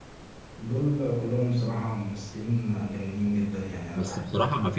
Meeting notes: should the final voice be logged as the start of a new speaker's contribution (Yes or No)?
Yes